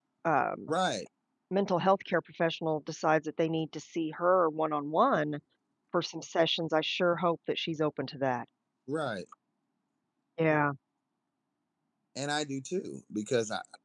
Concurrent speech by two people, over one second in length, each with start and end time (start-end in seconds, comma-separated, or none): none